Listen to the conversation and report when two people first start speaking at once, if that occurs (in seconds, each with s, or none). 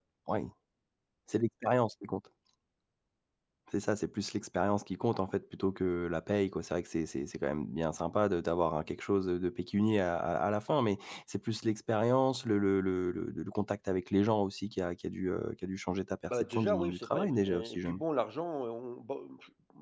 16.3 s